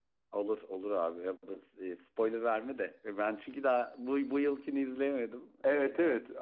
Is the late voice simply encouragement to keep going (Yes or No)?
No